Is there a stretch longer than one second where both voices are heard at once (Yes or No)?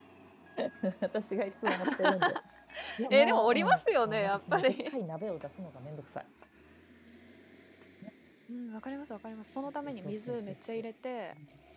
Yes